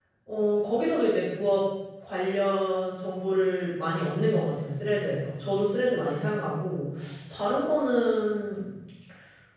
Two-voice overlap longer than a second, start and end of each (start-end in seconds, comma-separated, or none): none